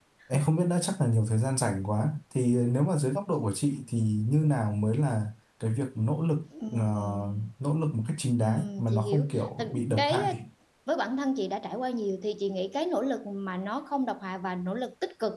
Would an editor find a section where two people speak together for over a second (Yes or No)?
Yes